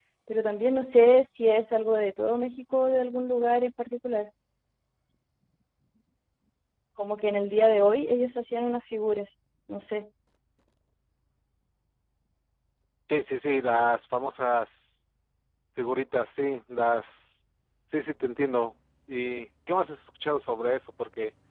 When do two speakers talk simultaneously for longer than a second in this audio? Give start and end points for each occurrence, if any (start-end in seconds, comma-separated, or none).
none